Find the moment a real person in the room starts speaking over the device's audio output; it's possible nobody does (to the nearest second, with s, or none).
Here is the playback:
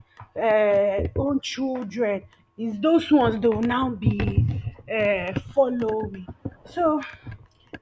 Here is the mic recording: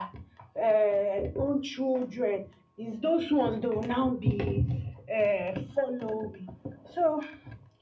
none